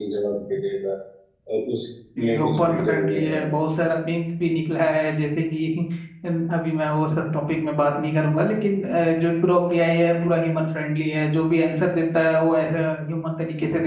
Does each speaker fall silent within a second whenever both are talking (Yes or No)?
No